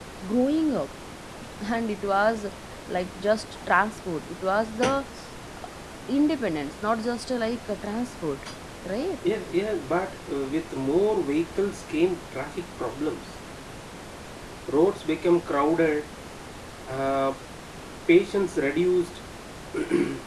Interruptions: none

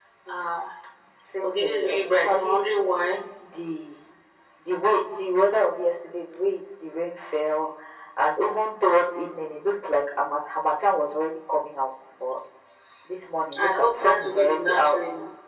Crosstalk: present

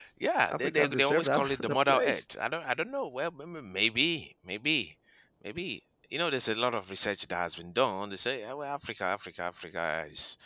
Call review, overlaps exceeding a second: present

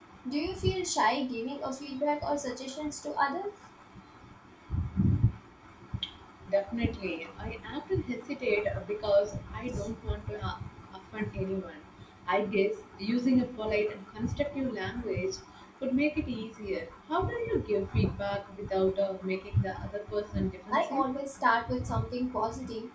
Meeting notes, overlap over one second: none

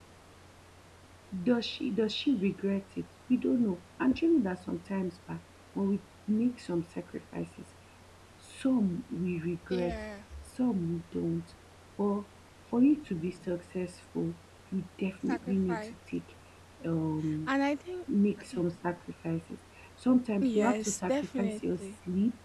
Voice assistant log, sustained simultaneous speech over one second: present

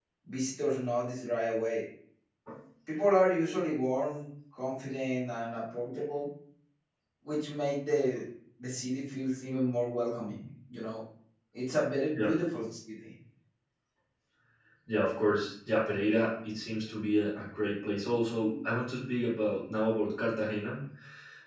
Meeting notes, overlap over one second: none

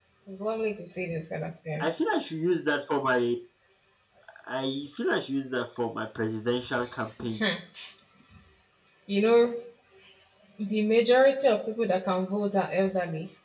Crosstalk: none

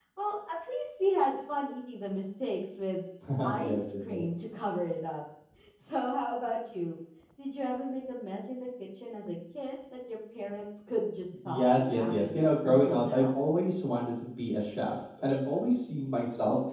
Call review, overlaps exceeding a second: present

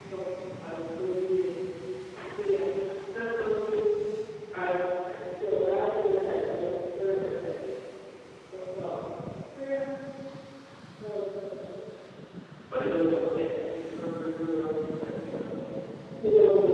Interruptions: none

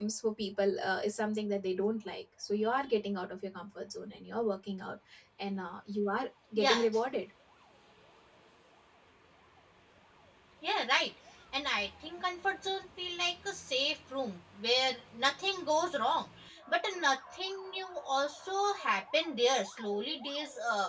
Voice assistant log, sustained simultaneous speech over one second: none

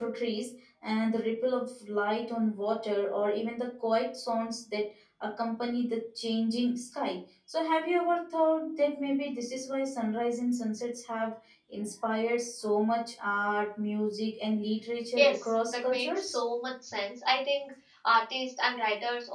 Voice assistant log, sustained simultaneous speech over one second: present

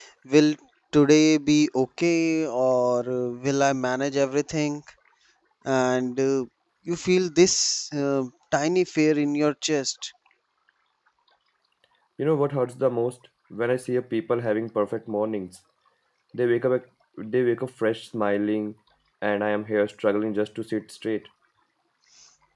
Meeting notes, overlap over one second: none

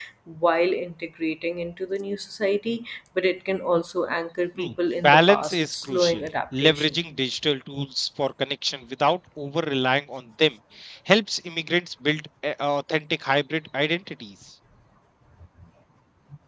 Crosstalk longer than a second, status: present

